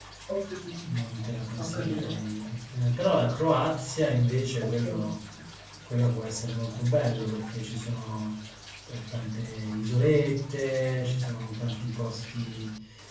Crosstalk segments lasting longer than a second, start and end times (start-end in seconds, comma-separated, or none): none